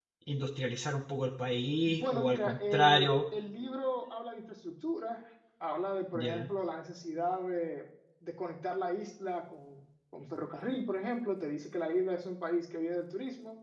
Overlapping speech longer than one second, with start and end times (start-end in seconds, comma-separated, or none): 1.9-3.1